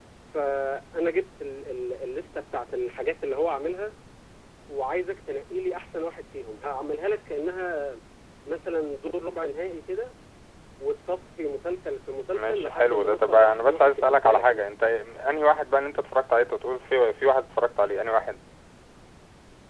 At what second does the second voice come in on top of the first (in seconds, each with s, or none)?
12.3 s